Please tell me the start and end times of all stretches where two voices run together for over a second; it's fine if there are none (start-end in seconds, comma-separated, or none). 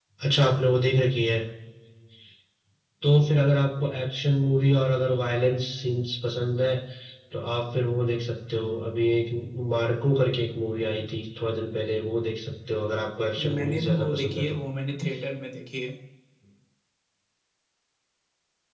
13.4-14.6